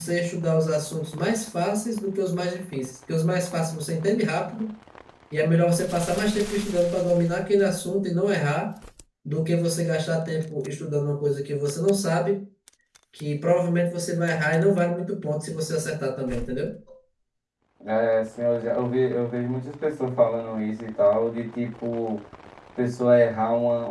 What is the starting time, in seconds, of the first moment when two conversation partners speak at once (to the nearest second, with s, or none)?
none